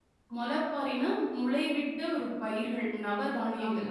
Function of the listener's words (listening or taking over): taking over